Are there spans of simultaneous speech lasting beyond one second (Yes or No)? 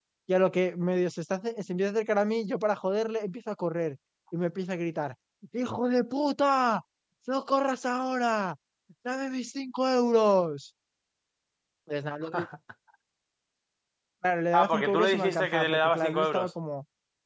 Yes